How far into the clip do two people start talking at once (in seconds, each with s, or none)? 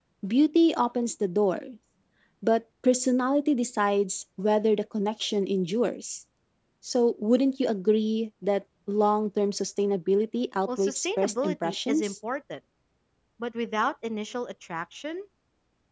10.7 s